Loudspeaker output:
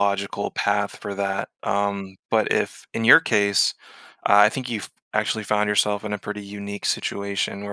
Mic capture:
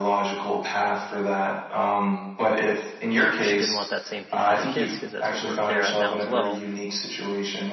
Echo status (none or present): present